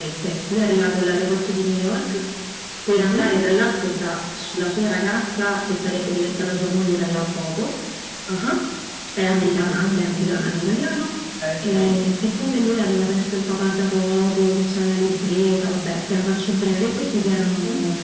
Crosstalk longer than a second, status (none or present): none